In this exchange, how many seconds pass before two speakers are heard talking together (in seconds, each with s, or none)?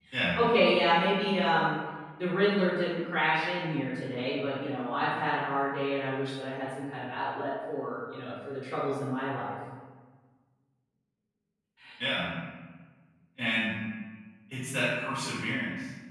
none